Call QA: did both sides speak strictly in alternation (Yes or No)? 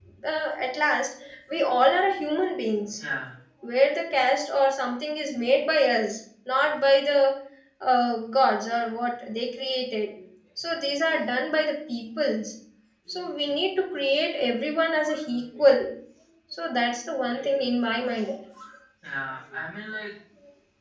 Yes